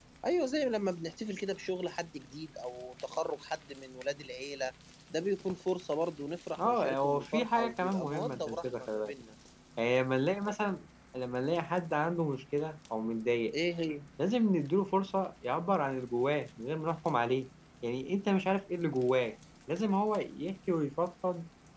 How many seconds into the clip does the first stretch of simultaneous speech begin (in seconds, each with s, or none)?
6.6 s